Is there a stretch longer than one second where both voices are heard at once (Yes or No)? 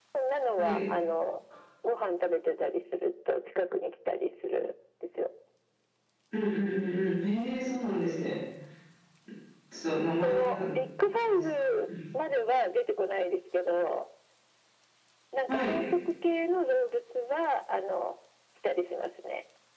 No